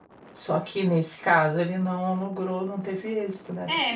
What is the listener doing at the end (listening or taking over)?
taking over